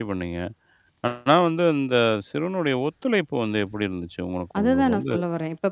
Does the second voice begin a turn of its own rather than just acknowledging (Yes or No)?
Yes